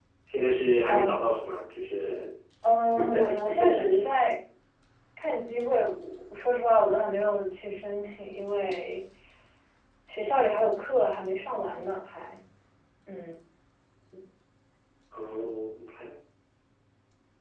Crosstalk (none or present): present